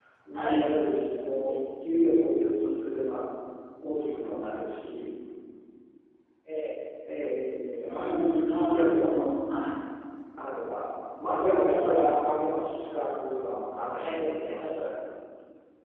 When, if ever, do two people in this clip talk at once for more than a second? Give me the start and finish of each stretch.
7.9-9.1

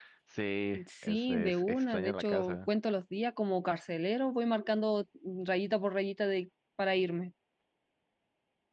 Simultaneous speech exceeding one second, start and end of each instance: 1.0-2.7

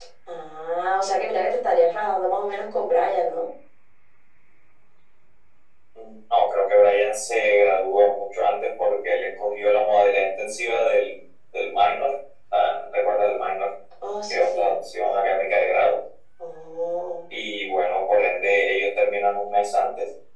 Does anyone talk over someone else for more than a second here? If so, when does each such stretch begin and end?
none

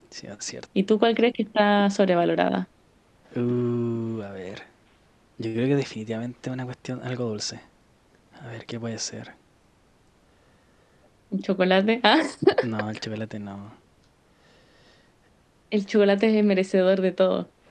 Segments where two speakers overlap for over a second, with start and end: none

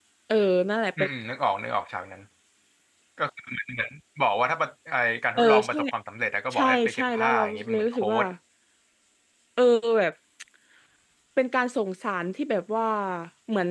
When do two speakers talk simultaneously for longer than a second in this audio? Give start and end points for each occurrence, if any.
6.5-8.2

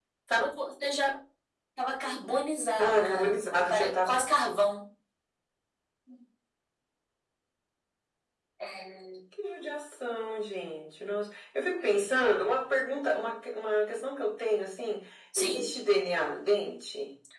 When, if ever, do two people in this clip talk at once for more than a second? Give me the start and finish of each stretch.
2.8-4.1

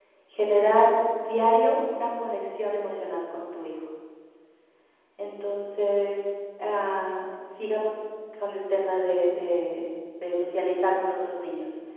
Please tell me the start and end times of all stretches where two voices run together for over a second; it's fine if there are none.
none

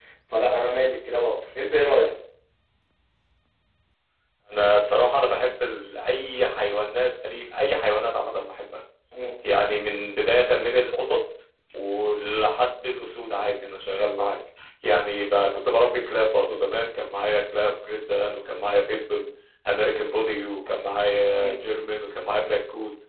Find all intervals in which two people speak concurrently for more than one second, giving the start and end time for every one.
none

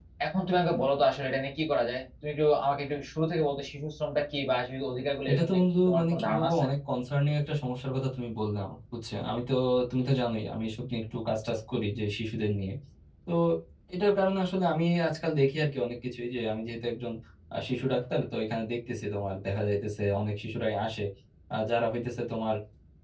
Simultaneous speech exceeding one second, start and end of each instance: 5.3-6.7

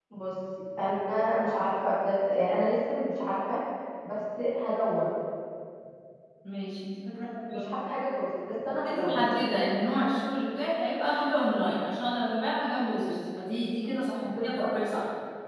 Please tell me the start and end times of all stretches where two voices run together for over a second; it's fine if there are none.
none

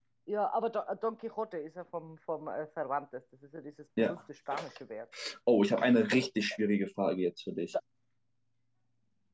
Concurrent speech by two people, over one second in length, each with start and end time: none

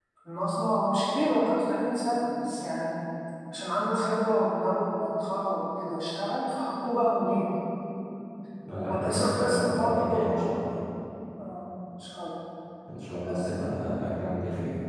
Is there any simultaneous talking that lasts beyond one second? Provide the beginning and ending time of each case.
8.9-10.5

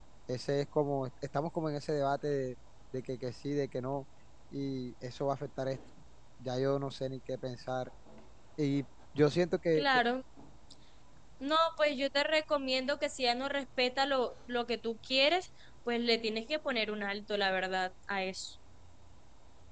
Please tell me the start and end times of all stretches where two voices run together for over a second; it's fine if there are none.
none

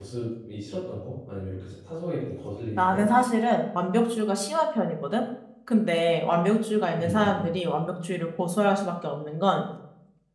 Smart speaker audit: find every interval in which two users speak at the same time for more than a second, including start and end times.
none

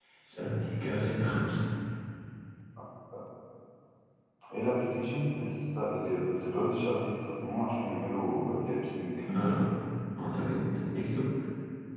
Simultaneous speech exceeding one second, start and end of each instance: none

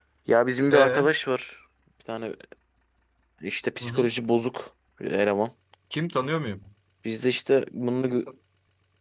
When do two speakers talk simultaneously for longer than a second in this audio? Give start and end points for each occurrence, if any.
none

